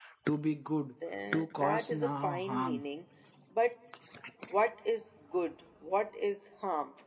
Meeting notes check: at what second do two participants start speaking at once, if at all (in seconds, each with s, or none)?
1.3 s